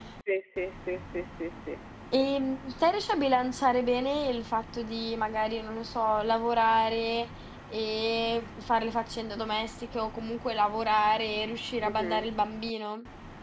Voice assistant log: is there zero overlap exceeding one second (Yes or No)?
Yes